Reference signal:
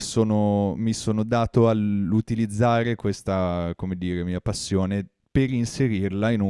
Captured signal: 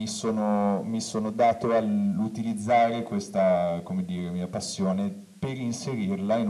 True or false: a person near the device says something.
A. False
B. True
A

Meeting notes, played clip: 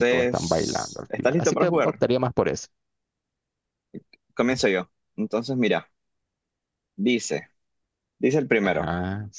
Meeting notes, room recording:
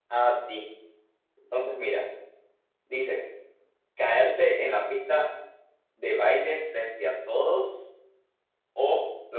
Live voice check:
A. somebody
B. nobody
A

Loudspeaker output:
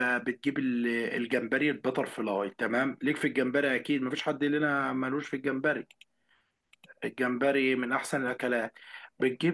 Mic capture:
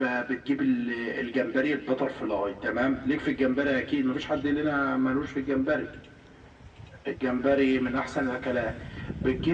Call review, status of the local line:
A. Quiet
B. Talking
A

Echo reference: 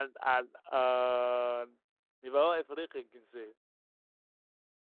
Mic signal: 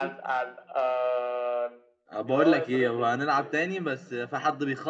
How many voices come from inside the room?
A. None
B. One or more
B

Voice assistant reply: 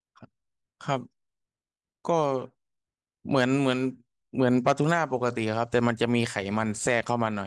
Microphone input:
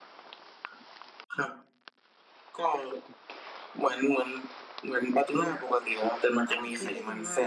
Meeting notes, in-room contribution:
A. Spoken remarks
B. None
A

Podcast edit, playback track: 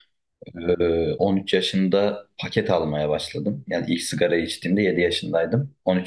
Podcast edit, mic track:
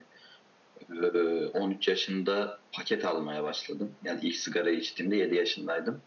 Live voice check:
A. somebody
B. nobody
B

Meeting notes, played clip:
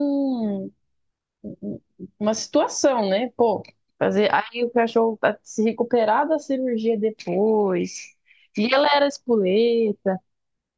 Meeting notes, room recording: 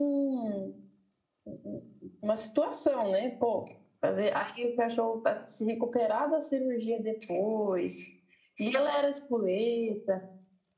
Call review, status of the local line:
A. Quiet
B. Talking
A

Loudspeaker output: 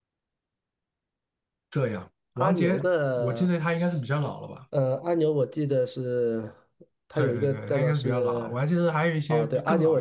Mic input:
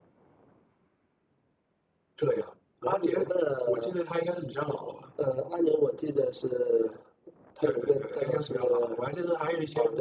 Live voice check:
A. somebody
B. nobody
B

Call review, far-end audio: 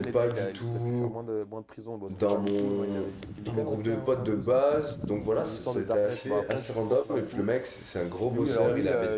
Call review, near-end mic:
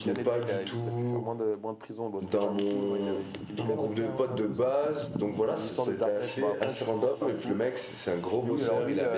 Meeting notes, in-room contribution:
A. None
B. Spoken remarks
A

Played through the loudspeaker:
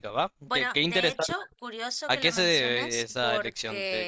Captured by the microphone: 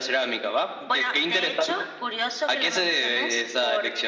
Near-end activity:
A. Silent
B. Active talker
A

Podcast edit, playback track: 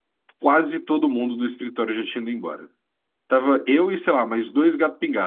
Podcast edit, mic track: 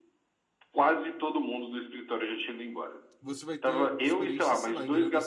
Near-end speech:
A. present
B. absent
A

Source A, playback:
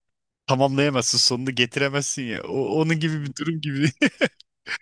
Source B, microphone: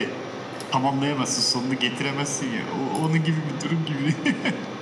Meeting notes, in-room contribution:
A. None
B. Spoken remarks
A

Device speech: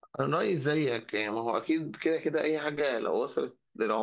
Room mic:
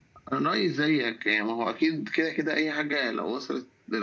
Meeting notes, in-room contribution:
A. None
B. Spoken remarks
A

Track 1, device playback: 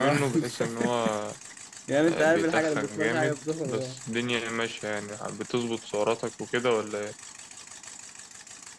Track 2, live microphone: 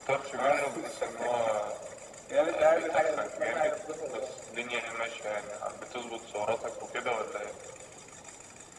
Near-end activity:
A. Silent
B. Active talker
A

